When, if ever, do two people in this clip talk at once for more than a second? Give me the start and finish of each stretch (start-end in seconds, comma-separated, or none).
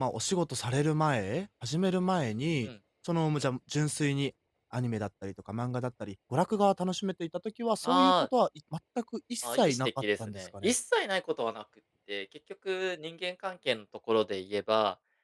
9.4-10.7